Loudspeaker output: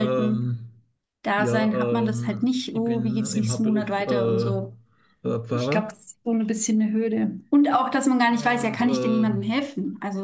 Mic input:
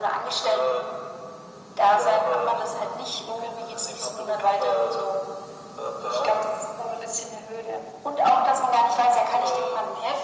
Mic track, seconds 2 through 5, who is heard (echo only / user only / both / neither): echo only